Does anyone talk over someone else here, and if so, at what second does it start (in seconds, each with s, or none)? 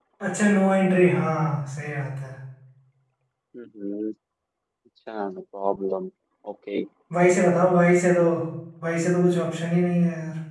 none